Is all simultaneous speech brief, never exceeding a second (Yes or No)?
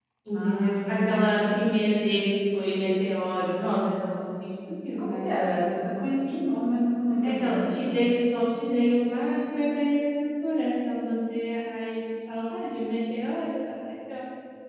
No